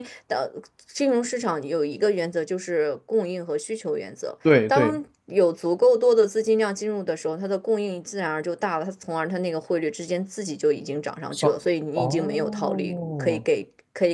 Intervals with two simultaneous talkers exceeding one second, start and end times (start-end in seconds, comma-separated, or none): 12.0-13.4